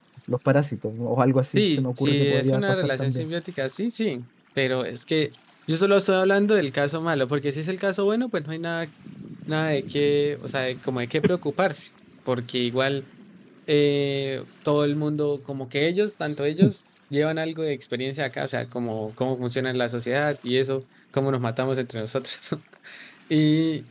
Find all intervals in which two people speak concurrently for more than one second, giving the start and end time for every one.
1.6-3.3

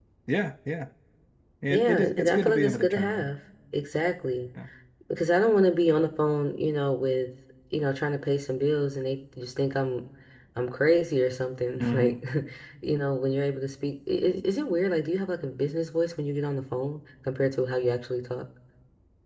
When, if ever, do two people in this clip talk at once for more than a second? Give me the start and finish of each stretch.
1.7-3.3

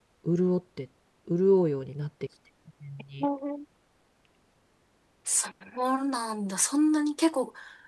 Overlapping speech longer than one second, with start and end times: none

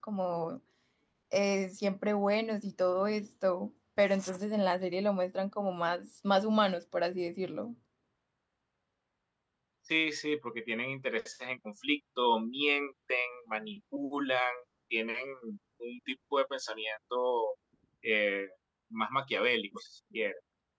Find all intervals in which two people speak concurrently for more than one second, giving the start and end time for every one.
none

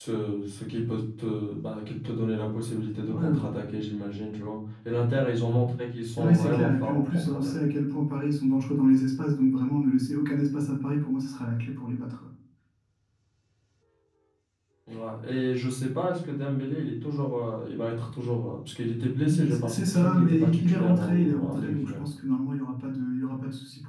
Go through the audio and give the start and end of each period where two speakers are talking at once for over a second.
6.2-7.5, 19.3-22.0

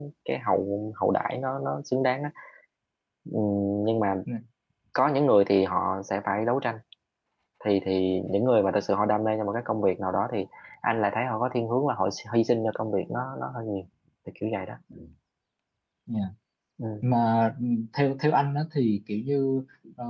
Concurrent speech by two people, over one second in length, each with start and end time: none

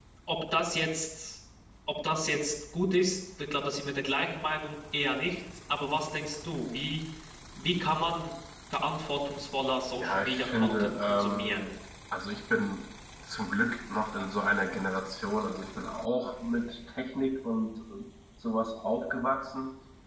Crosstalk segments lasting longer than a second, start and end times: 10.0-11.7

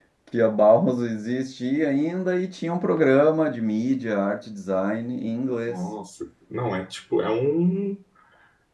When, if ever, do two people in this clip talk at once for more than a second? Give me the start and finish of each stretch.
none

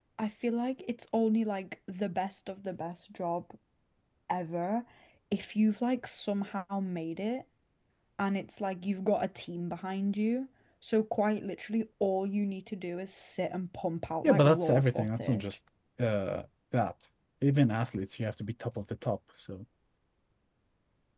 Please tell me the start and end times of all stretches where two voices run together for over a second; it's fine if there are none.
14.2-15.6

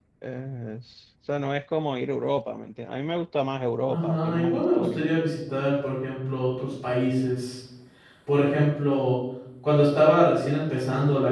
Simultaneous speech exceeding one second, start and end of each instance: 3.9-5.1

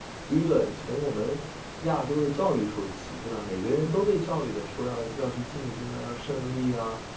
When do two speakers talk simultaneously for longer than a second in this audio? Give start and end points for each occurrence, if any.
none

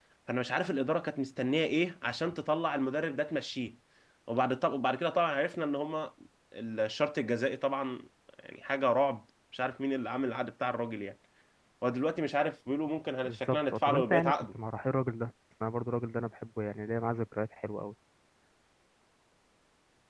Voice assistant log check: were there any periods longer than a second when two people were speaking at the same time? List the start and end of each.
13.2-14.5

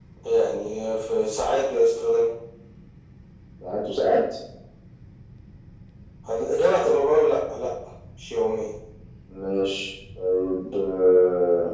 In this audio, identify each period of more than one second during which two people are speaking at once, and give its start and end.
none

